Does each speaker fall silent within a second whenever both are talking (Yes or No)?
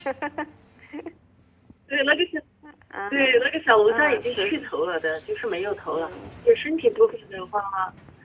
No